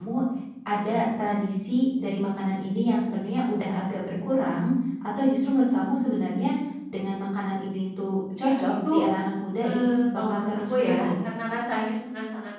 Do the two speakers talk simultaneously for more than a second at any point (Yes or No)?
Yes